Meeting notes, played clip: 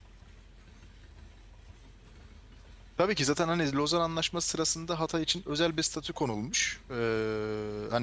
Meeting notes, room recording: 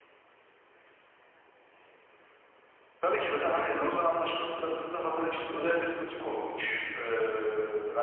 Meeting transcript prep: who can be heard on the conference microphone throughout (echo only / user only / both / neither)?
echo only